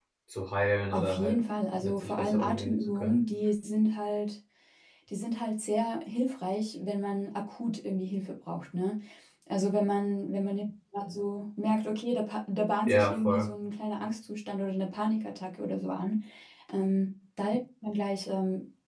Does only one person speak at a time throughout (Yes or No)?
No